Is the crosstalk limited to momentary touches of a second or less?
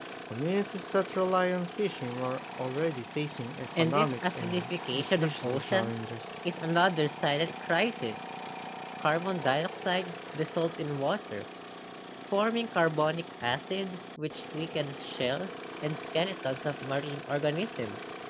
No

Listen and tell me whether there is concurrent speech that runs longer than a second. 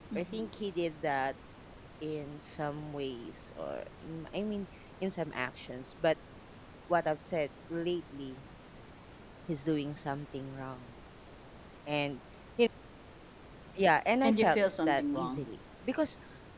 Yes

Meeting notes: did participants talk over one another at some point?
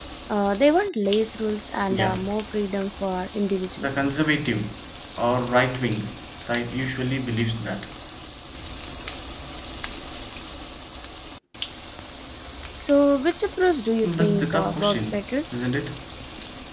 Yes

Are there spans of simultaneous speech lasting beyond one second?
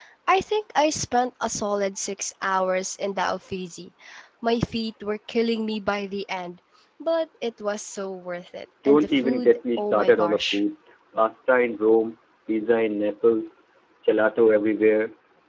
Yes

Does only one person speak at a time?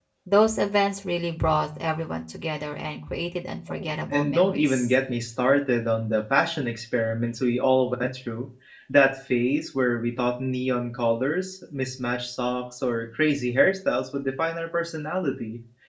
No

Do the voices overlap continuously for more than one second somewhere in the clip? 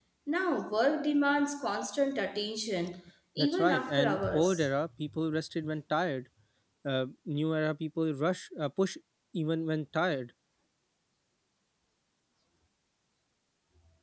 Yes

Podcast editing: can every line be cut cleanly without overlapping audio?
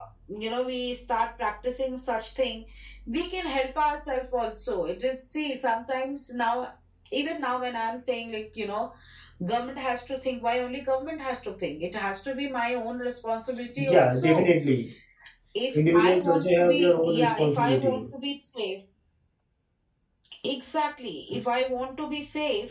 No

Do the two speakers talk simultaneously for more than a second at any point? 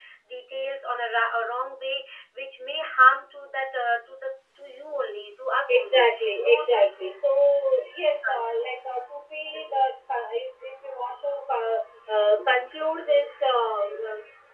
Yes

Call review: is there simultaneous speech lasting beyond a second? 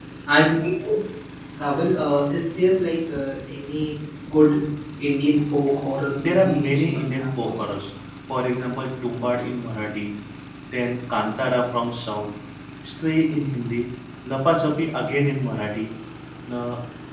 Yes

